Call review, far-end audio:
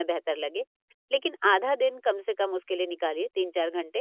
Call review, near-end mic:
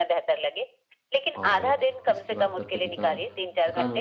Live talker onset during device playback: 1 s

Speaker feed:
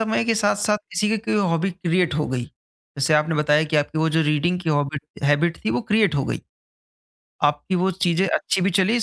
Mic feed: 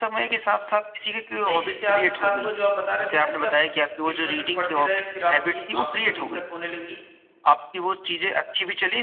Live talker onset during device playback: 1 s

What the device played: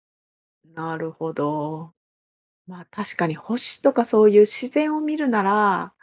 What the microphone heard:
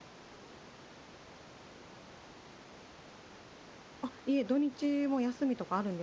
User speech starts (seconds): 4 s

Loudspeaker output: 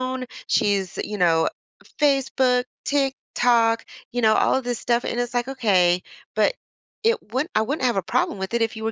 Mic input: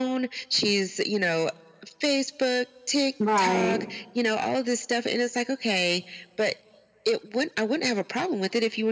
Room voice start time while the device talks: 3 s

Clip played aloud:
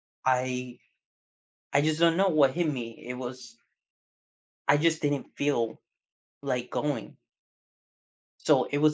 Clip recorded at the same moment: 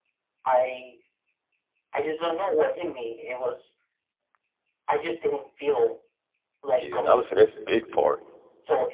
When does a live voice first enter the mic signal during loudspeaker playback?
7 s

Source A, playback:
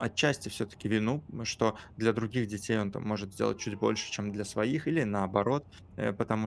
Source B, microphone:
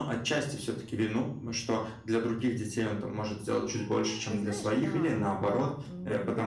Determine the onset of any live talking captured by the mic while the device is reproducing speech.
4 s

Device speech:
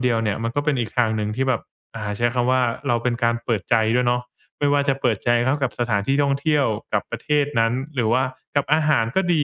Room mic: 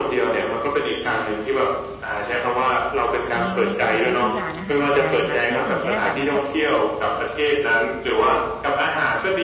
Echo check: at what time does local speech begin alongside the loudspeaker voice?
3 s

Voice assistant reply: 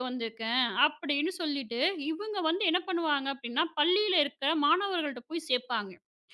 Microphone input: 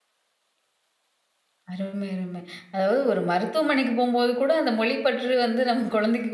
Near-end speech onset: 2 s

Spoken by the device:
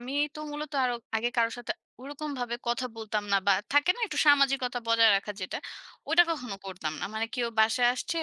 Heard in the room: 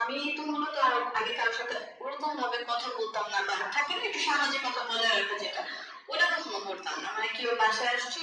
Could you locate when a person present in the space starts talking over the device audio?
none

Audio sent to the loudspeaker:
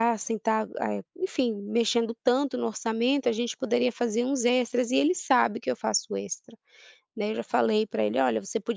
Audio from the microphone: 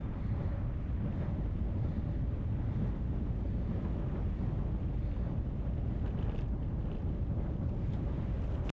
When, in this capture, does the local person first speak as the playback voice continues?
none

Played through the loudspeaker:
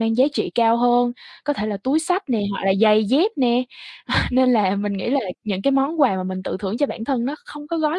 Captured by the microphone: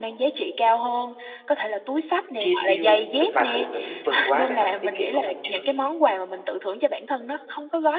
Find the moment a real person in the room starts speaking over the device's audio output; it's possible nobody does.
2 s

